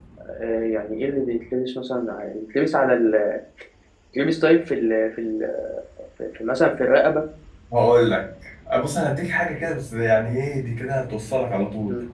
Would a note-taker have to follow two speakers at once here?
No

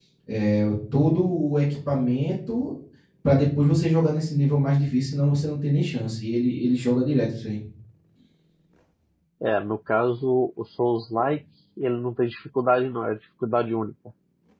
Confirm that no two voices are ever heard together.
Yes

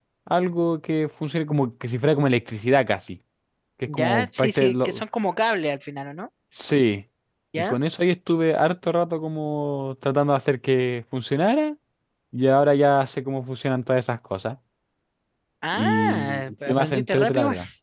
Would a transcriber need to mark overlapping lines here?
Yes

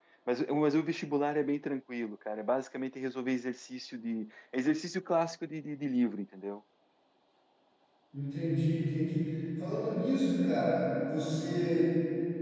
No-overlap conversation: Yes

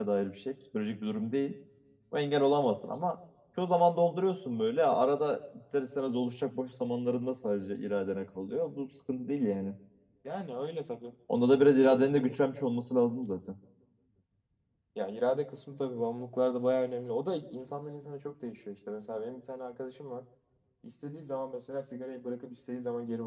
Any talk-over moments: No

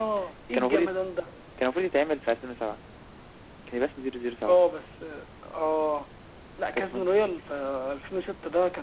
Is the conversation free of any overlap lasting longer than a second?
Yes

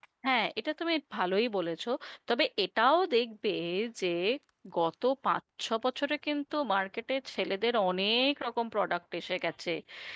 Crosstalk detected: No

